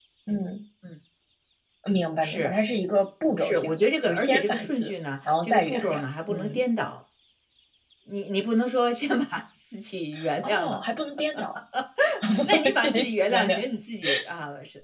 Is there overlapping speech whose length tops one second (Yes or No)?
Yes